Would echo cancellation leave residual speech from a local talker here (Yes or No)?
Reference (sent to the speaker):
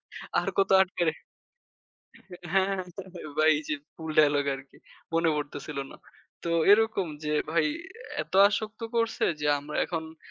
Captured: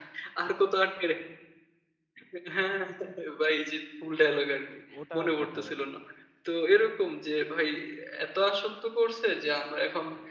Yes